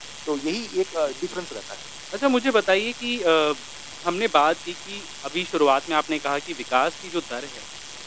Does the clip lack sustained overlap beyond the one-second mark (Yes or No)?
Yes